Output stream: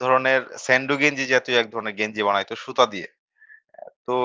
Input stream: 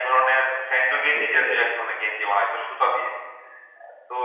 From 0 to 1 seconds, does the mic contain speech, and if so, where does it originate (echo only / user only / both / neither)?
echo only